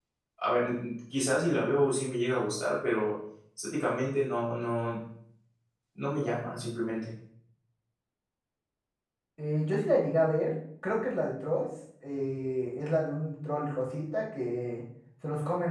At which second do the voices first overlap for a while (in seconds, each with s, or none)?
none